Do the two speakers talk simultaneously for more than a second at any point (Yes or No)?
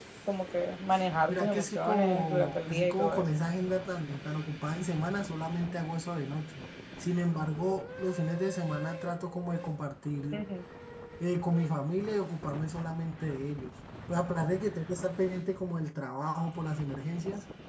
Yes